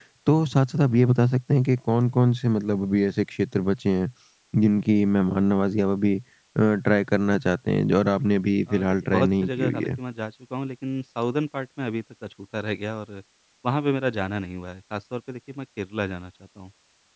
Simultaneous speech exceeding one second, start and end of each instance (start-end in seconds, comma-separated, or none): 8.7-9.9